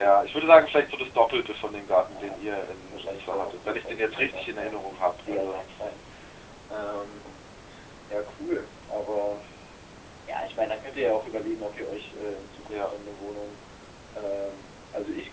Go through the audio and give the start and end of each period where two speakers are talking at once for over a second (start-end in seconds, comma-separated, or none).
2.9-5.6